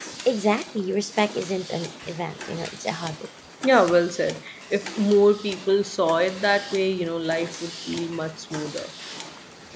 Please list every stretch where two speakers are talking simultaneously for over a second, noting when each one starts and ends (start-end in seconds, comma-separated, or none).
none